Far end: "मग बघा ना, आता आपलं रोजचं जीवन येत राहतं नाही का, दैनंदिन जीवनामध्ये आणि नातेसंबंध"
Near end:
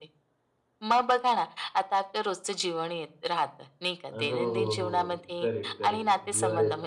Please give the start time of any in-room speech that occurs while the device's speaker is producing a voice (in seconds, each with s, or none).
4.1 s